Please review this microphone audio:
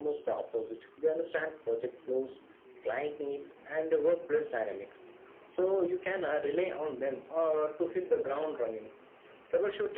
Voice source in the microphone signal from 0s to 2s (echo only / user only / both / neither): echo only